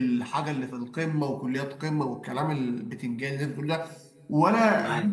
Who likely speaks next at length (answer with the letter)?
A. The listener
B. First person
B